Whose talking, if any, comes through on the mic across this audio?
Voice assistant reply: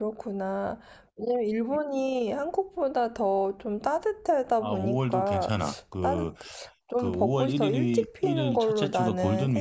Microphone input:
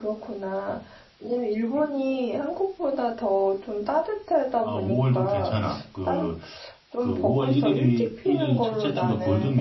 echo only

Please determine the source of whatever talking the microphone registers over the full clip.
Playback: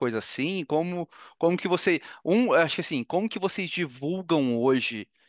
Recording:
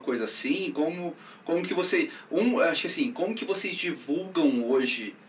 echo only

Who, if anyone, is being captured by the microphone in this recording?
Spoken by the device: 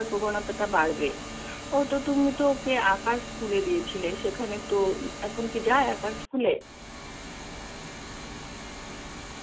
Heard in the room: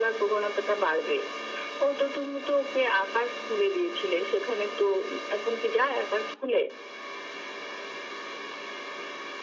echo only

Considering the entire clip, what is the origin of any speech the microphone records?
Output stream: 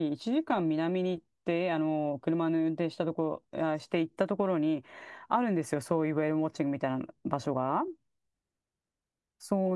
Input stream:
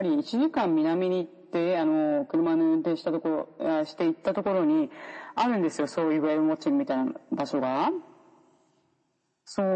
echo only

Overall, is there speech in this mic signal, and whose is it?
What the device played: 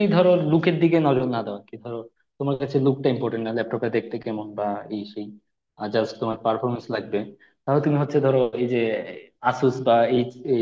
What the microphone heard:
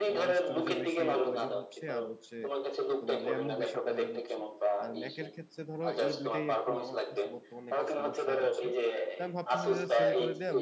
both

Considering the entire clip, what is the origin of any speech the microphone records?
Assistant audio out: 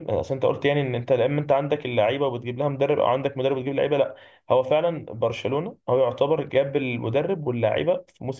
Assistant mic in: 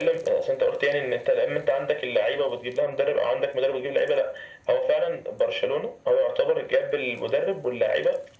echo only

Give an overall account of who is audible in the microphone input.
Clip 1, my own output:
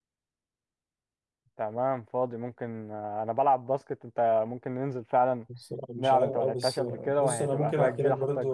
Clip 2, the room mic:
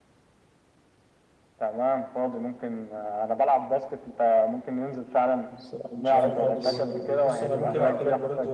both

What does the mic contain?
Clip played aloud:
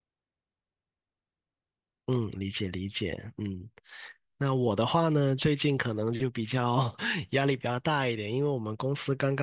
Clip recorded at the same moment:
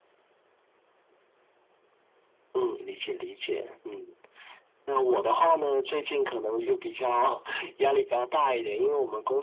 echo only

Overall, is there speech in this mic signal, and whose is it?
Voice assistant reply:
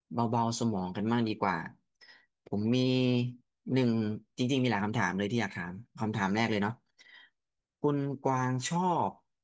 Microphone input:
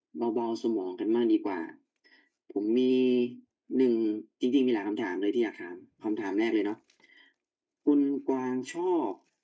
echo only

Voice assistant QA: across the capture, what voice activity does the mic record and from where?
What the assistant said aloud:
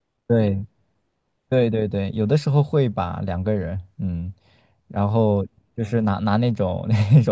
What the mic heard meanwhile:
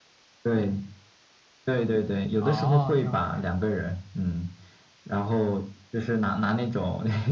both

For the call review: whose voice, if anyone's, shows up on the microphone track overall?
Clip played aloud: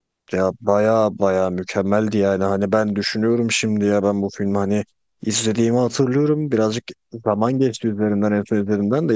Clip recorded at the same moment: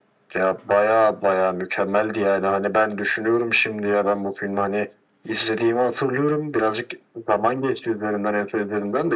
echo only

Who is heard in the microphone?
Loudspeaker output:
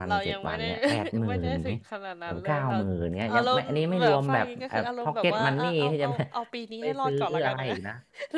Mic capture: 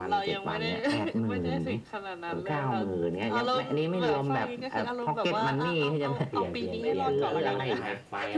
both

